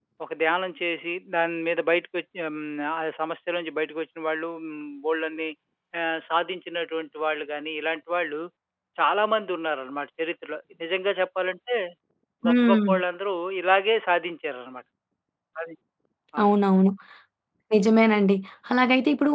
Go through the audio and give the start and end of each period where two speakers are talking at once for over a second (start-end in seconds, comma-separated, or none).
none